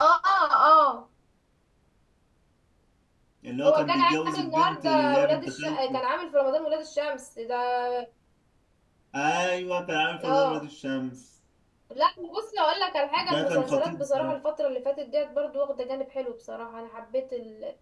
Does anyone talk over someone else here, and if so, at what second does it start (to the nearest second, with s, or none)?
4 s